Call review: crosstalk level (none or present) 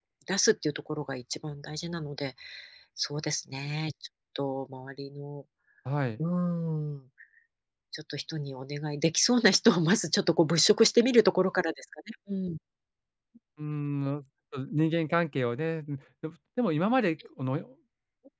none